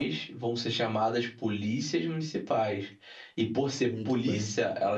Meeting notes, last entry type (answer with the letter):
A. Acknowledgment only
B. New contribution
A